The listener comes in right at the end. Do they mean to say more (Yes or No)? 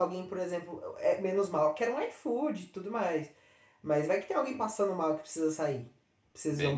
Yes